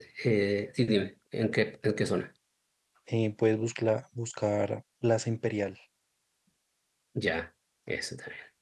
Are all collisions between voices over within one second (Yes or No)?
Yes